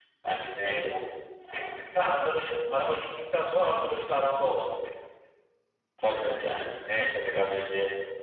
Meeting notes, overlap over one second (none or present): none